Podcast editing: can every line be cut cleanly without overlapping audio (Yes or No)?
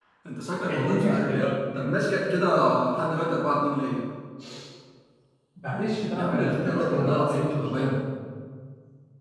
No